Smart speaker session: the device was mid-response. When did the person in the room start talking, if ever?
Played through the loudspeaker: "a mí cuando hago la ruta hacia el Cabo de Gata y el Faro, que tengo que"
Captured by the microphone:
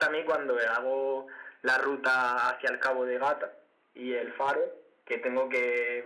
none

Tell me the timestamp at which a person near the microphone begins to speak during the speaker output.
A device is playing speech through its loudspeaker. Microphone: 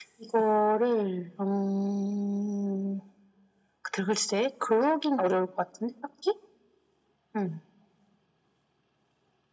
none

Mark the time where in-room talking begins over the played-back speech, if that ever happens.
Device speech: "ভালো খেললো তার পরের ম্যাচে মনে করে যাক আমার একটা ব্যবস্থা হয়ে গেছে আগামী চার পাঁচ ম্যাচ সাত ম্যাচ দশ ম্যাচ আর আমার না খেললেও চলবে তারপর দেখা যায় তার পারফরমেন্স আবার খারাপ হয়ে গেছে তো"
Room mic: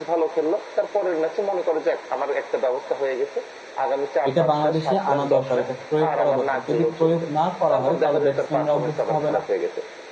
4.3 s

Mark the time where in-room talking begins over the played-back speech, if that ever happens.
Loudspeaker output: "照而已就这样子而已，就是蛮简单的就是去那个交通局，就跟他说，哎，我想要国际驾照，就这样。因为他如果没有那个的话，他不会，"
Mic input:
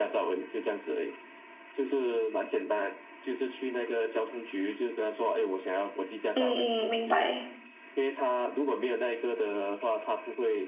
6.3 s

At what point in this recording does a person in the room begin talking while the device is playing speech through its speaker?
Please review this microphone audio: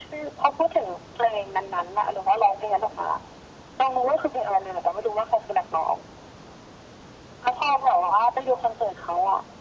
none

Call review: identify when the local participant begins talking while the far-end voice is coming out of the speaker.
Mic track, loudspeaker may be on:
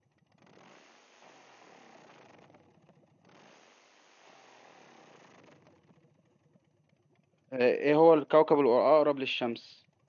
7.5 s

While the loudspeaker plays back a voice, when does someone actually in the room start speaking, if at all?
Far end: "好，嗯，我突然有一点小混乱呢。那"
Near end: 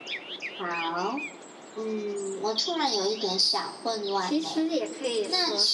4.1 s

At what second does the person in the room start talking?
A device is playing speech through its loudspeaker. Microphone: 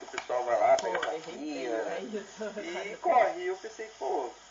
0.8 s

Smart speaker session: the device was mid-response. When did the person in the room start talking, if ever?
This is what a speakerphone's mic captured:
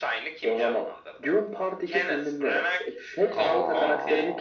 3.3 s

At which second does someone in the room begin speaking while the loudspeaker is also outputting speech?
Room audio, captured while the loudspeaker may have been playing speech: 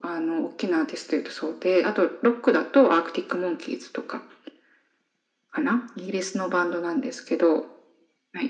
none

